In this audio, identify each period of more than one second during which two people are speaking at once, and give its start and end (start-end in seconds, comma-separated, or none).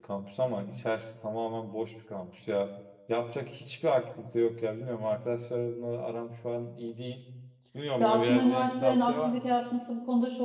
8.0-9.5